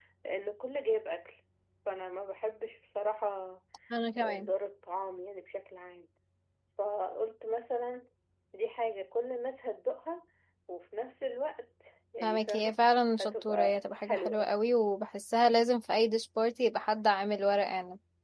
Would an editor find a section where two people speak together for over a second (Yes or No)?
Yes